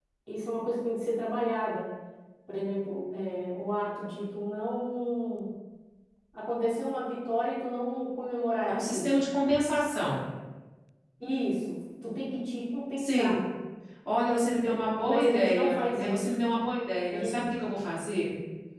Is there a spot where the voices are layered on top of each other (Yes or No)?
Yes